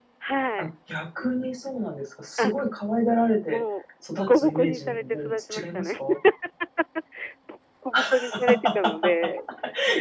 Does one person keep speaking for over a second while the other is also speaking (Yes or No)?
Yes